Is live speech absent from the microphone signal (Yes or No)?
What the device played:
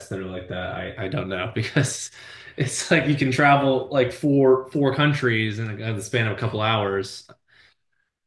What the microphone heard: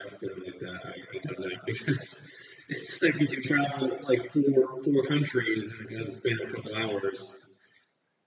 Yes